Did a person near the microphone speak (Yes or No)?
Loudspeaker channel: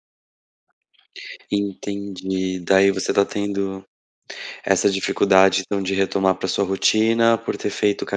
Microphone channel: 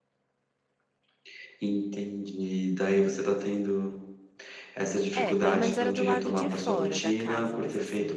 Yes